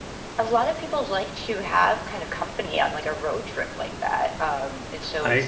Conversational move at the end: taking over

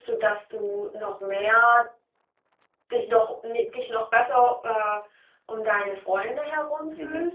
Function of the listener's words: taking over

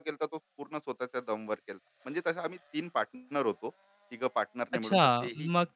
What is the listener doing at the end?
taking over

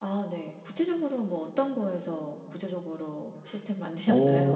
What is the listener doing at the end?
taking over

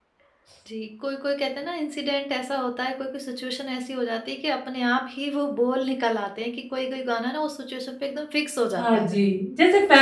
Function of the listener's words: taking over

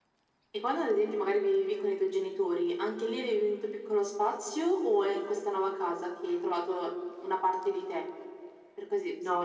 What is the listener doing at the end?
taking over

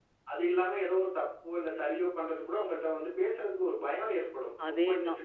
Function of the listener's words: listening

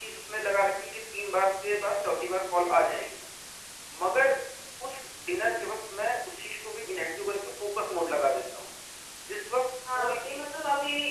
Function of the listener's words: taking over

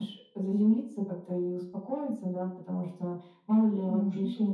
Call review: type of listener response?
listening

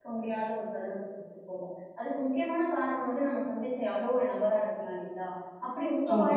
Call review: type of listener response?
listening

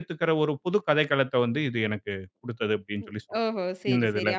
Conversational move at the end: taking over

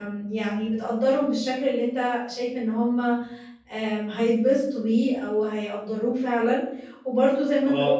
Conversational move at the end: listening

